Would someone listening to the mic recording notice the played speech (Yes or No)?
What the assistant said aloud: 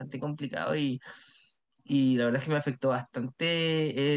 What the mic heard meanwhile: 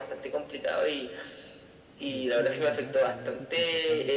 Yes